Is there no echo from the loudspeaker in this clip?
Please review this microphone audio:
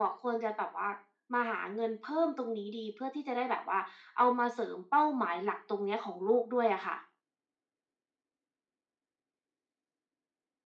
No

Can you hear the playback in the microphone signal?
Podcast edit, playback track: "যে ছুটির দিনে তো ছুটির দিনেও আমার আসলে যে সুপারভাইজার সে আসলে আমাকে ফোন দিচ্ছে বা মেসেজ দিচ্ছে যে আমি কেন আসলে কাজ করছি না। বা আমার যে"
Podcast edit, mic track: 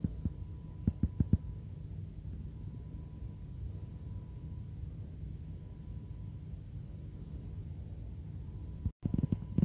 No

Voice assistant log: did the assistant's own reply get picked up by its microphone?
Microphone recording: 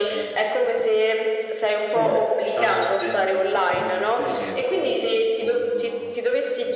Yes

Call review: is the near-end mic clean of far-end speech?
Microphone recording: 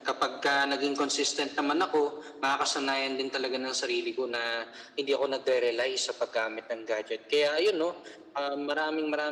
No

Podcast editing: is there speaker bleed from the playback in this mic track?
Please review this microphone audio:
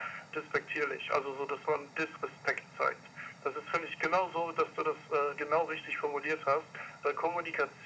Yes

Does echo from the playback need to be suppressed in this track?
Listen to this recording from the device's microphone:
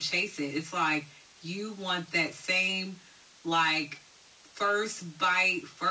Yes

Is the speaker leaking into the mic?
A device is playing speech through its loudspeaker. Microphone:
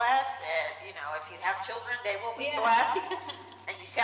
Yes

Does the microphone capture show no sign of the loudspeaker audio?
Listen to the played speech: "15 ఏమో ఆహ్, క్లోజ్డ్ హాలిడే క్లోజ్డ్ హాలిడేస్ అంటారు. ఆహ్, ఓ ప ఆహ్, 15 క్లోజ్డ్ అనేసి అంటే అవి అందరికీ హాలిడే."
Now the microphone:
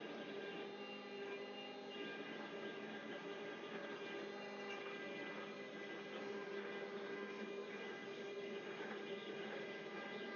Yes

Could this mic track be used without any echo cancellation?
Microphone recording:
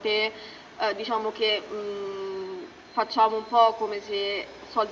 No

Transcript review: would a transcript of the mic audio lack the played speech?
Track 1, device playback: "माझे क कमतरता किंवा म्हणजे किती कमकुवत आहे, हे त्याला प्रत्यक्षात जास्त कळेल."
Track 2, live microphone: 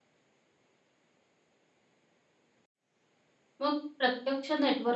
Yes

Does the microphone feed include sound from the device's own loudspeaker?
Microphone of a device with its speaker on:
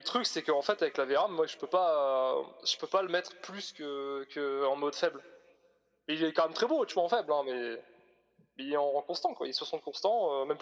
Yes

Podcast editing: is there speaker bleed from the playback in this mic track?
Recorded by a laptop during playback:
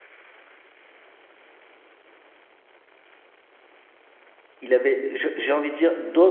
No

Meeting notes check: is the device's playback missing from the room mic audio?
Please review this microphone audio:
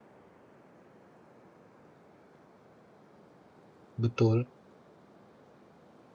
Yes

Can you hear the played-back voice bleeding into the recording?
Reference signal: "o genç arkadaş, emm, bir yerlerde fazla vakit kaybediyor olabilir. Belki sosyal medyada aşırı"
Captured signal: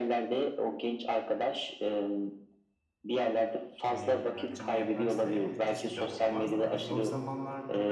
Yes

